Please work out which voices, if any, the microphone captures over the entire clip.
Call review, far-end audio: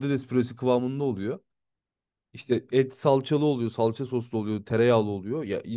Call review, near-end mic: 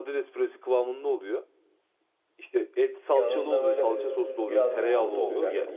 both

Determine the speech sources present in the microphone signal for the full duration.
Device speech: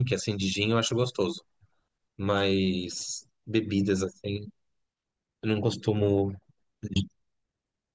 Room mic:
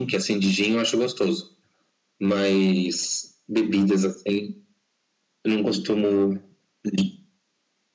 echo only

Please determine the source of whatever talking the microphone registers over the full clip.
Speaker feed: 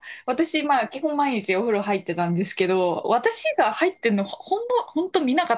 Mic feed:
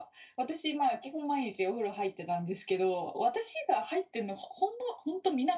echo only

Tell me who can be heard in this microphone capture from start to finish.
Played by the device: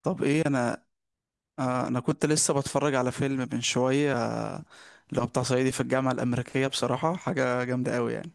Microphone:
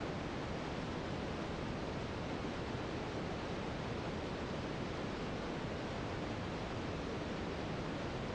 neither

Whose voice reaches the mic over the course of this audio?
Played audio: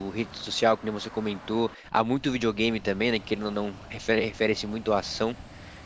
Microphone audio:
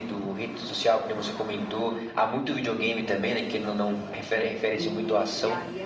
both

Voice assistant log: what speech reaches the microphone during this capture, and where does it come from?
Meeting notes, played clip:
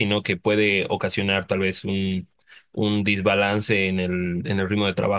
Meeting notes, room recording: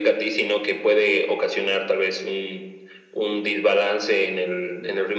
echo only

